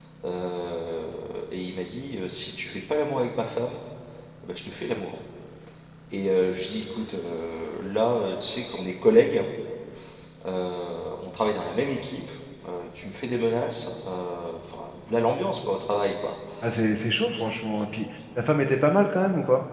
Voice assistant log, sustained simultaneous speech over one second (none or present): none